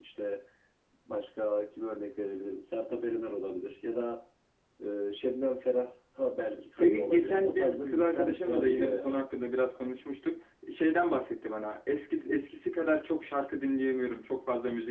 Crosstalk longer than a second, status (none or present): present